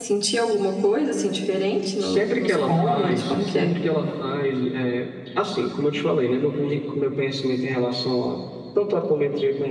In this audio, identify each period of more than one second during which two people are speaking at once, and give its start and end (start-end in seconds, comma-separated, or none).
2.0-3.8